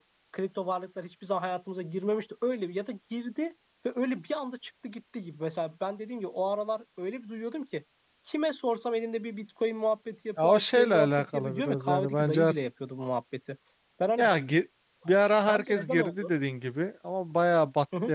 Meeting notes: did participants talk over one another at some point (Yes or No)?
Yes